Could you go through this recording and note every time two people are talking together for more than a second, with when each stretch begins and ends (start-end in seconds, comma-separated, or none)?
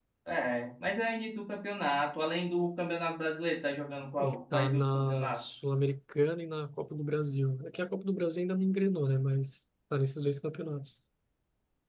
4.2-5.4